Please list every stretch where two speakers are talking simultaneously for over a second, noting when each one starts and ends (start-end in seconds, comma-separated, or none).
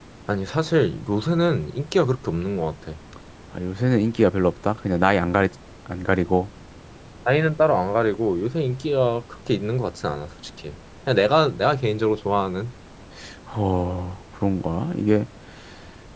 none